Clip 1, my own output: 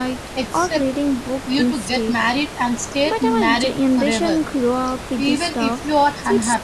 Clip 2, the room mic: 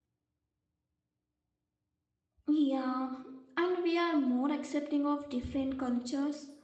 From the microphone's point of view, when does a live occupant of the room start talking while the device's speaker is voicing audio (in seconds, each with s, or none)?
2.5 s